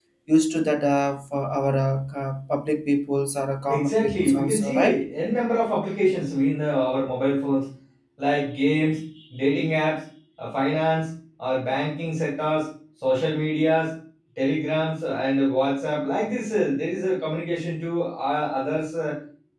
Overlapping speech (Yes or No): Yes